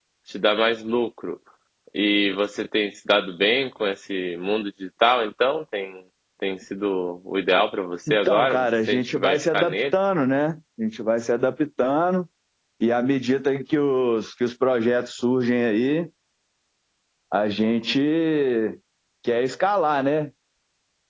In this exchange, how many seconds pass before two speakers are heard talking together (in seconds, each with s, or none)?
8.1 s